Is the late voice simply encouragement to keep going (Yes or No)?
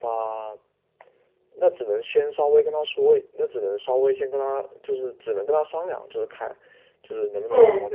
Yes